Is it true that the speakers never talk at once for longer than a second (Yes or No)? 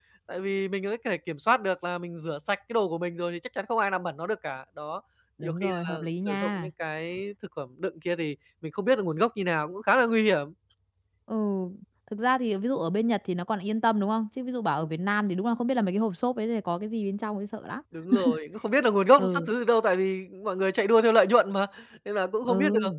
No